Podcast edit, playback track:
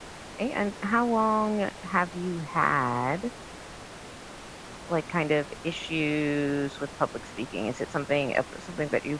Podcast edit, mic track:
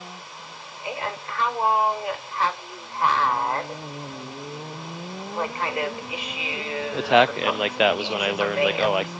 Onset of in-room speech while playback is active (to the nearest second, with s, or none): 7 s